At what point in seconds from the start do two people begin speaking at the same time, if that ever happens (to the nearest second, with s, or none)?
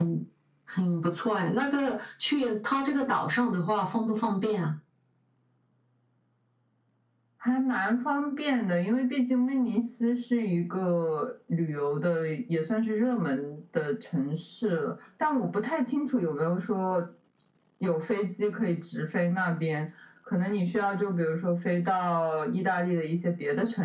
none